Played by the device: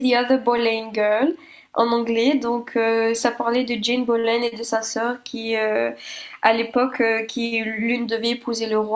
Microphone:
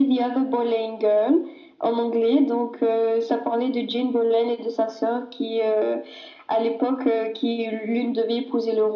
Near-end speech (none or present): none